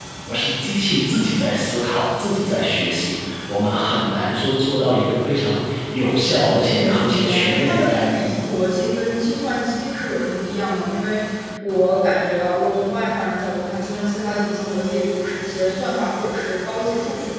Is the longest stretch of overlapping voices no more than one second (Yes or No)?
No